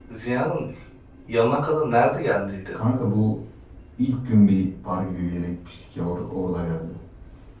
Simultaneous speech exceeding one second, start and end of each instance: none

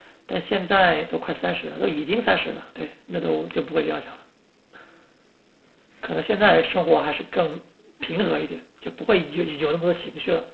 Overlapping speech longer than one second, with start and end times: none

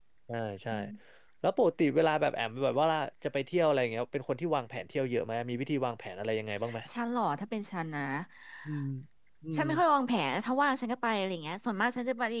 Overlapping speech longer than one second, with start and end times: none

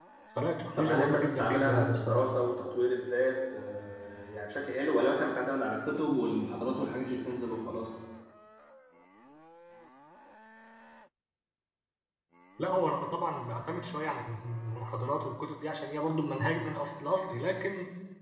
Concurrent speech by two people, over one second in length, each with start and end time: 0.8-2.3

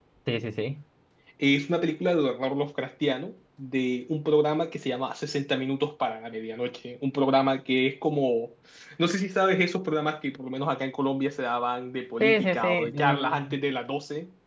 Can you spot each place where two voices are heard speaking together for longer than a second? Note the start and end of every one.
12.2-13.6

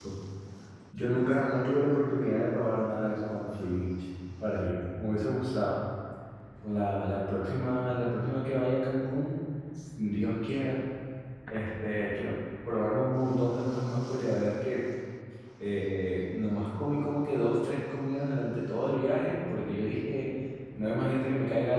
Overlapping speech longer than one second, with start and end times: none

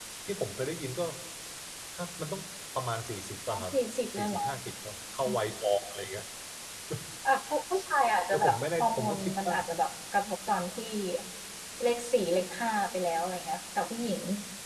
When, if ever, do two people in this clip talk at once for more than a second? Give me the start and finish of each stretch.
8.3-9.5

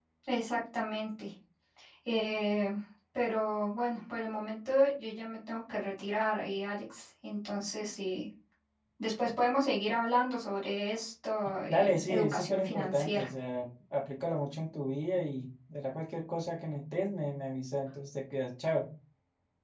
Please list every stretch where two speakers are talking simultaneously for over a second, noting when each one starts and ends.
11.7-13.3

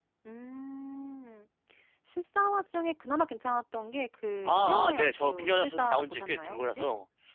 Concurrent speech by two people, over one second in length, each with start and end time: 4.5-6.8

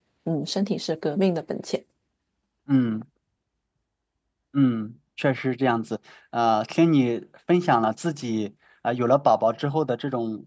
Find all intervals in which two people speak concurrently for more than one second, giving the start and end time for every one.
none

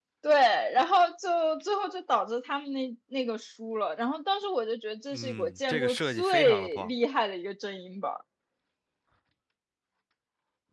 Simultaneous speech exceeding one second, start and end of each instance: 5.1-6.9

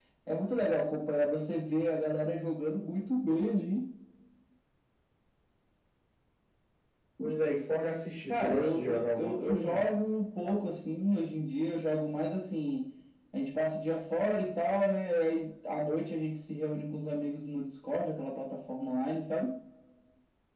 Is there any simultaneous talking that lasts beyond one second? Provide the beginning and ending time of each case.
8.3-9.9

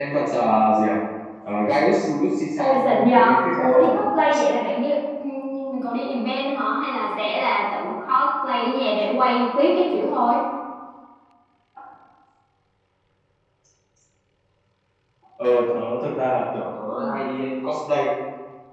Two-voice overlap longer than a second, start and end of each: 2.6-4.0

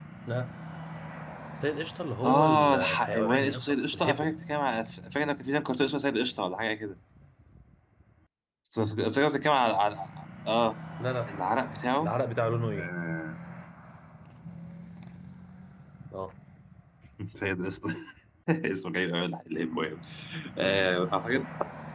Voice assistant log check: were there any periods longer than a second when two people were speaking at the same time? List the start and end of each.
2.2-4.3

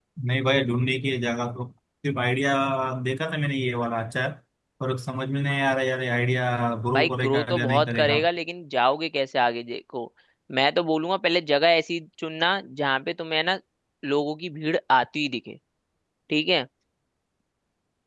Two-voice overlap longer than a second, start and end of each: 6.9-8.2

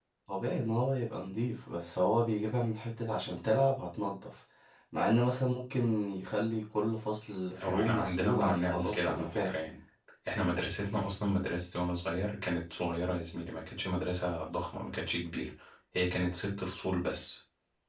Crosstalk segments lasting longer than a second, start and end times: 7.6-9.5

